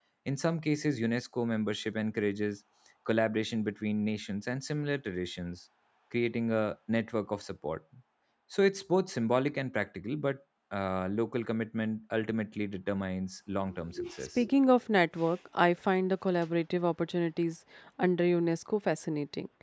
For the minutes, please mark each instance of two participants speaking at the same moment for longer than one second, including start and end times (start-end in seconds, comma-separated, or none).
none